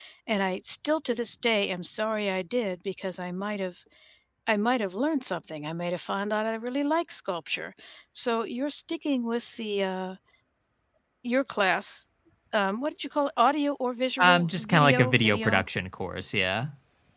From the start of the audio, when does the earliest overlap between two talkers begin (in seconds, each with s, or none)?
14.2 s